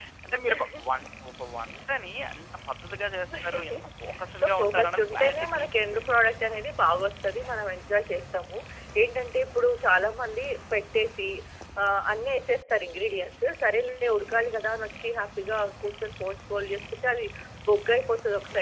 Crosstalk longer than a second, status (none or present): present